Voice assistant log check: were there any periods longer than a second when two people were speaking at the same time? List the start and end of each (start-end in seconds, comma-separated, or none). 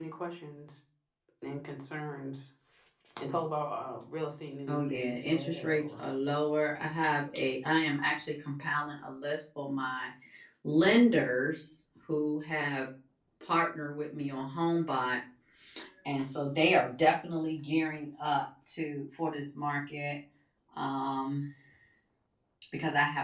4.7-5.9